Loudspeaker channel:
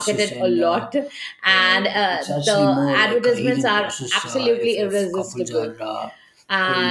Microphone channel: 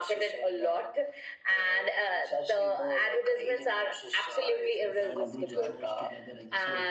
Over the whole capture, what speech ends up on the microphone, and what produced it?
both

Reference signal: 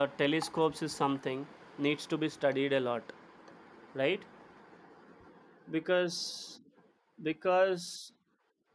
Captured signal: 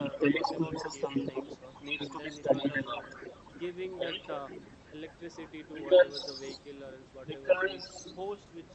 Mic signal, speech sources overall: both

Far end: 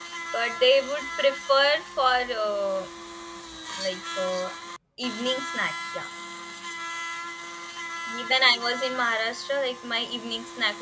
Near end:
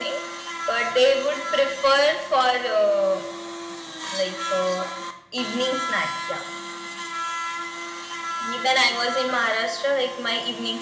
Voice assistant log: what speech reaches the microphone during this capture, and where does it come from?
echo only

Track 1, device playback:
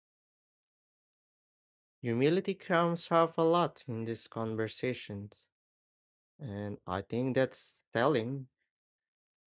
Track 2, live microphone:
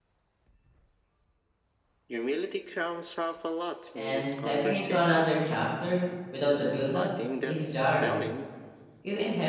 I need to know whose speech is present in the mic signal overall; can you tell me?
both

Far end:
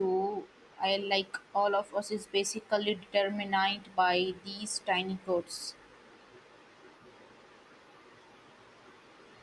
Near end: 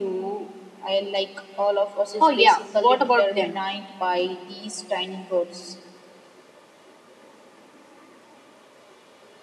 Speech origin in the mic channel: both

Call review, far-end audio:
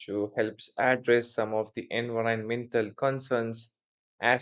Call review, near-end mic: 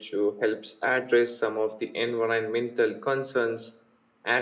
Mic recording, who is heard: echo only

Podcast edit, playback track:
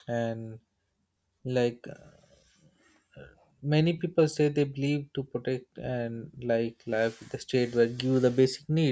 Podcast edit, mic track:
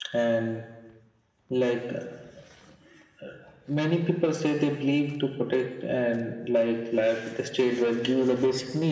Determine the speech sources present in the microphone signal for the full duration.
echo only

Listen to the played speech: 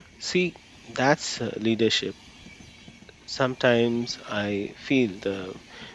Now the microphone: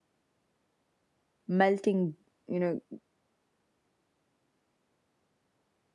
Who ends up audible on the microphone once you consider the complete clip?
user only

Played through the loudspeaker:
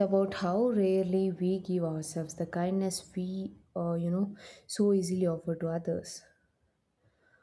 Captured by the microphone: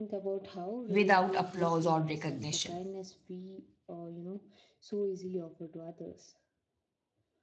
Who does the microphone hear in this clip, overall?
both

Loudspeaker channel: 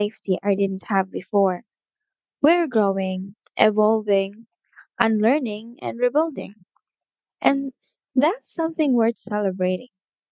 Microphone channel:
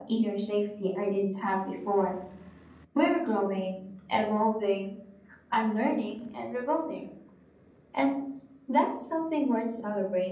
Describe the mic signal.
echo only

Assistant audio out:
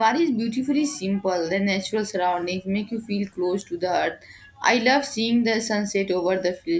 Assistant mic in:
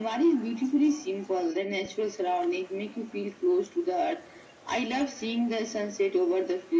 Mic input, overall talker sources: echo only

